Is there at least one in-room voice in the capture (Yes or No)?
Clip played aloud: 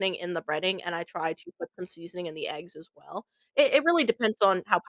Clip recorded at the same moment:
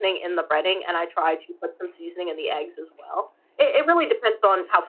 No